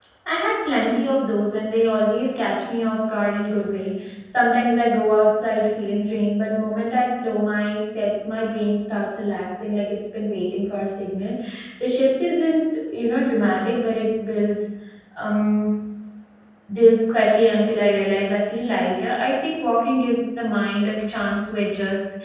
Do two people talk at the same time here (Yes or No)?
No